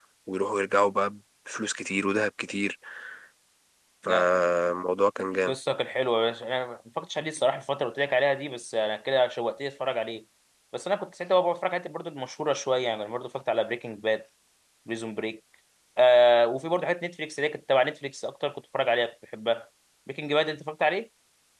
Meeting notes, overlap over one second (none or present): none